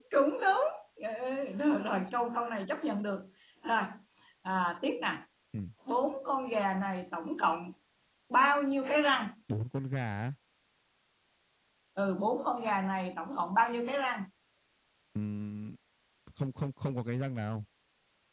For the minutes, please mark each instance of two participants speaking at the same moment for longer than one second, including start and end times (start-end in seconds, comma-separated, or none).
none